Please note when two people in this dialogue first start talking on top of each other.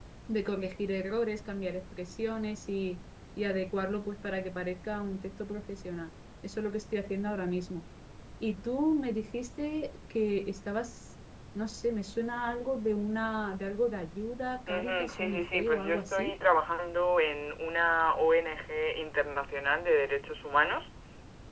14.7 s

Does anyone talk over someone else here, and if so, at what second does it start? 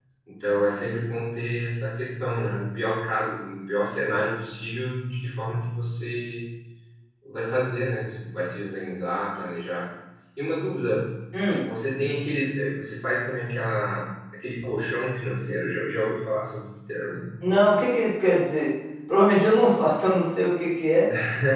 none

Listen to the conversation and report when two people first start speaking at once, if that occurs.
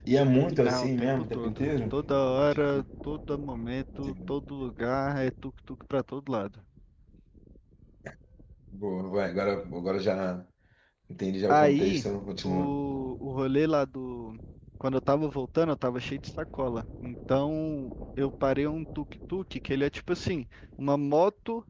0.5 s

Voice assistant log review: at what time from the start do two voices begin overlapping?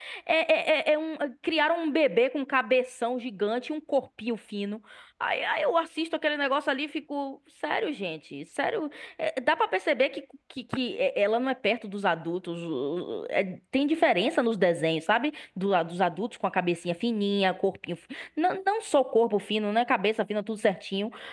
none

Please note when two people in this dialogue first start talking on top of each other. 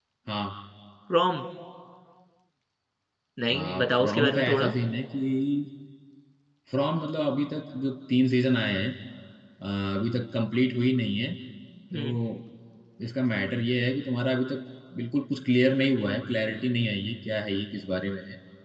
3.5 s

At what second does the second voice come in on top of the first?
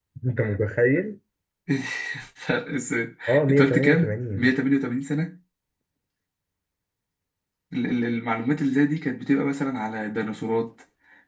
3.3 s

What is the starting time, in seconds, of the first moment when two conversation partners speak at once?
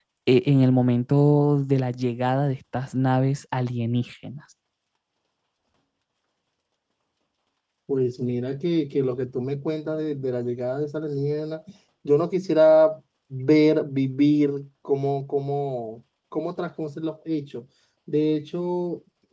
none

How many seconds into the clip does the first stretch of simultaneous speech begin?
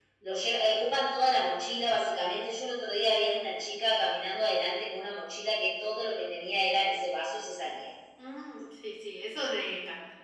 none

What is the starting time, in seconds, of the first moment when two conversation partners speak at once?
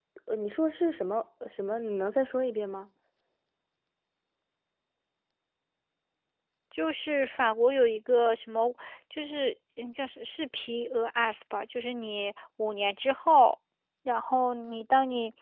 none

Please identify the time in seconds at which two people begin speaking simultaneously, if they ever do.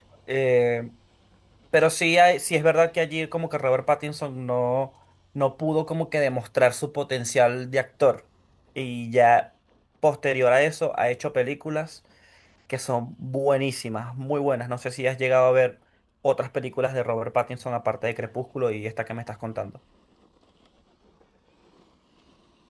none

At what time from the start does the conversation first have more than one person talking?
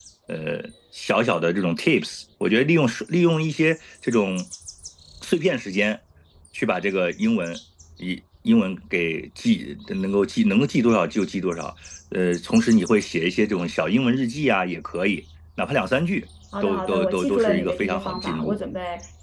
16.5 s

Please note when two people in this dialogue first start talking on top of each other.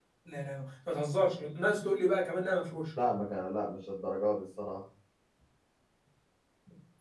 none

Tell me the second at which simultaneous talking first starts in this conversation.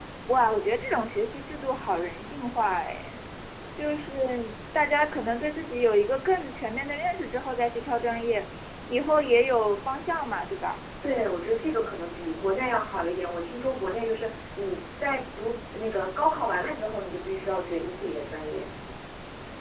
none

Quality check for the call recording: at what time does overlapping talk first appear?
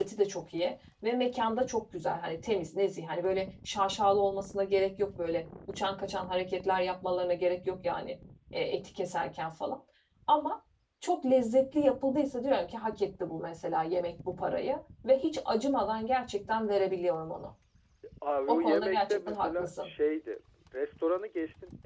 18.5 s

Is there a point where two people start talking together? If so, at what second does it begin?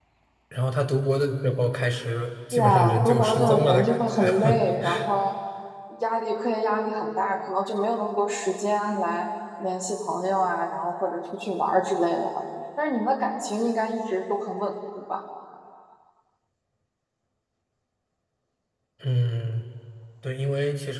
2.5 s

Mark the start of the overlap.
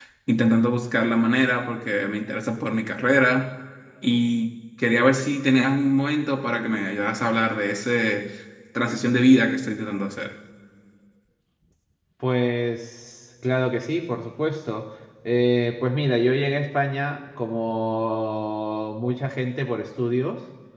none

